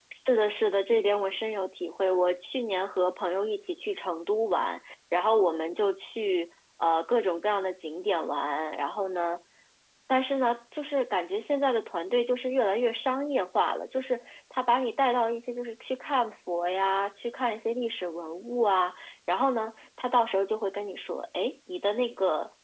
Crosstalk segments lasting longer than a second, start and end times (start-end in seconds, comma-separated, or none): none